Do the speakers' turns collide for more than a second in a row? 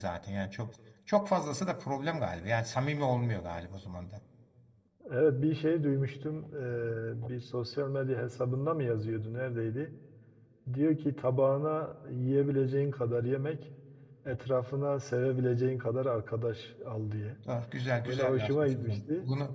Yes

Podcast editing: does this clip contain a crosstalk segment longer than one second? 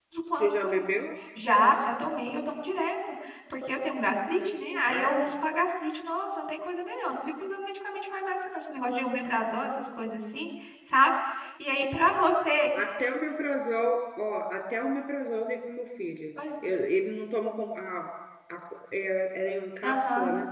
No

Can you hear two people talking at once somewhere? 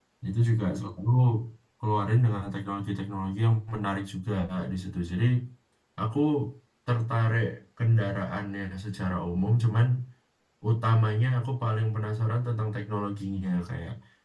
No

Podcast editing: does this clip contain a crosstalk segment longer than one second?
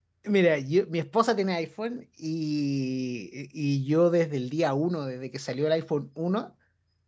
No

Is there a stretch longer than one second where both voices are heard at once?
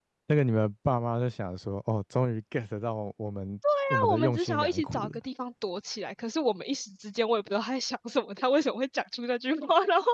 Yes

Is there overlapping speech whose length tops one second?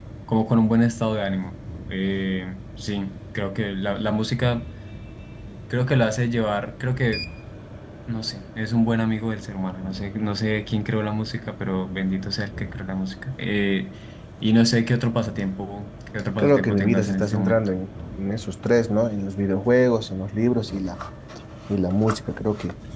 Yes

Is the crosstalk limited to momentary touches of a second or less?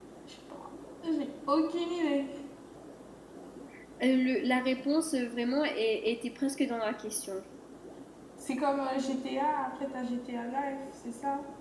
Yes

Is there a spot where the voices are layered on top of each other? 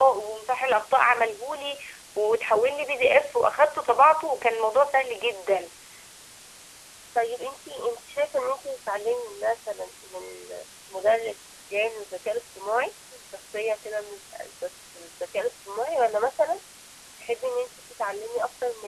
No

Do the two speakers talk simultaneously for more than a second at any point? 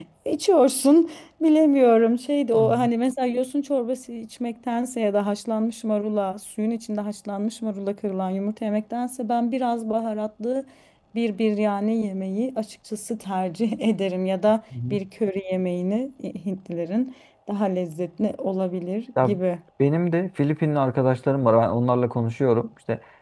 No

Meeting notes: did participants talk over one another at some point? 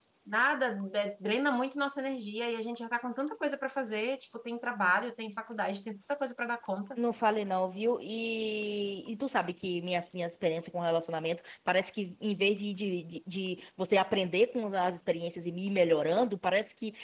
No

